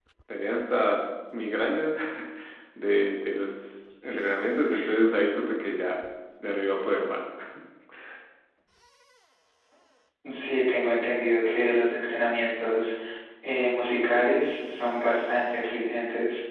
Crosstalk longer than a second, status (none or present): none